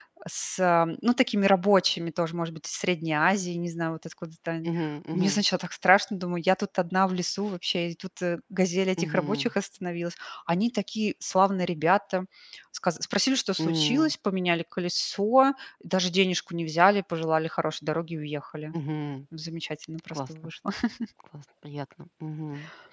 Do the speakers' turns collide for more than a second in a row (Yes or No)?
No